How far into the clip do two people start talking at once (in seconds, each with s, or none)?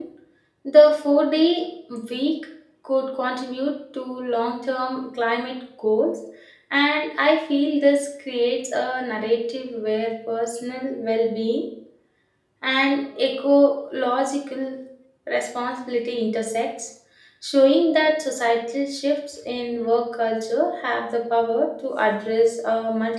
none